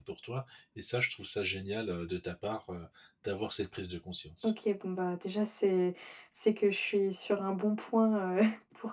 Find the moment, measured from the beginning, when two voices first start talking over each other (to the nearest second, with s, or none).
none